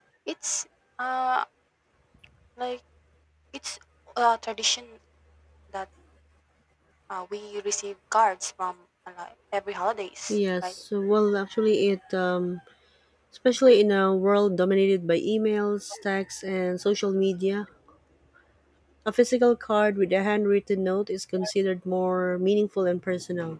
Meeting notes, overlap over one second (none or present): none